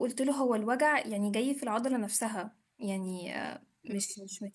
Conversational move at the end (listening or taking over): listening